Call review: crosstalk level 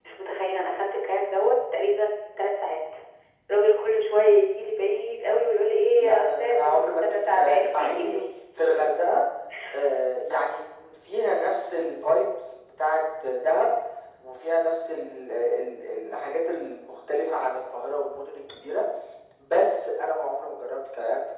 present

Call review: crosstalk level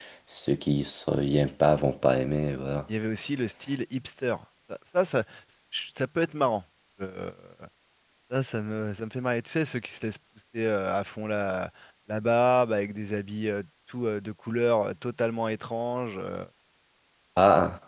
none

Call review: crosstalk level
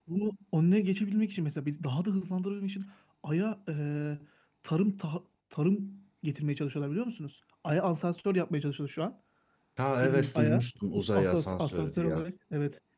present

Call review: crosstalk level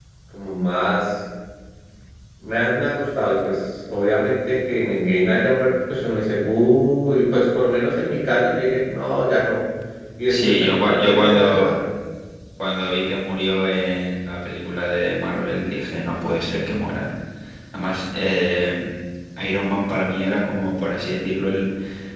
present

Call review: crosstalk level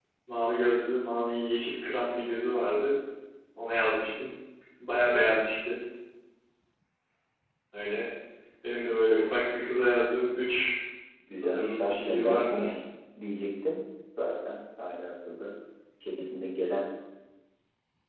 present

